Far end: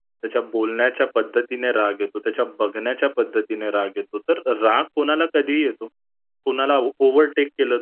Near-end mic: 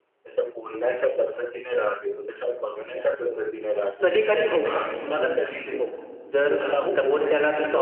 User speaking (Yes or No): Yes